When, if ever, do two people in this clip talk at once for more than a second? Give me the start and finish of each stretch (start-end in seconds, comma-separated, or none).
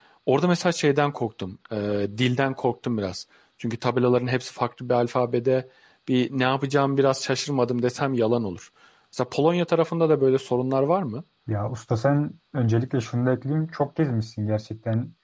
none